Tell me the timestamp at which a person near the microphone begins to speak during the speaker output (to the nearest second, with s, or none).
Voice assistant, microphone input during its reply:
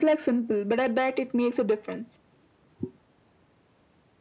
none